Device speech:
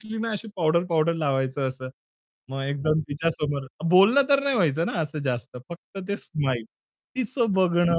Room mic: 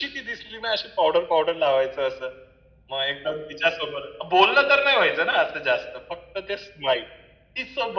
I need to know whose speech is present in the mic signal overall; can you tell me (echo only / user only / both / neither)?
echo only